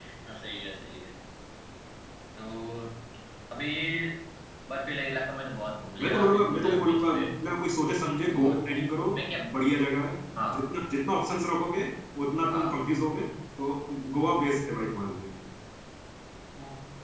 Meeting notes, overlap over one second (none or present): present